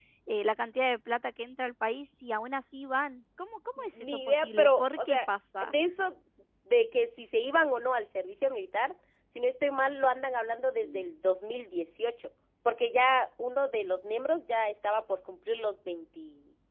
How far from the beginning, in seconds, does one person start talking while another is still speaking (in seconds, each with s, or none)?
3.8 s